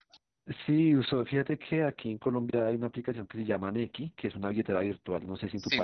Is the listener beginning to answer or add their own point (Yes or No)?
Yes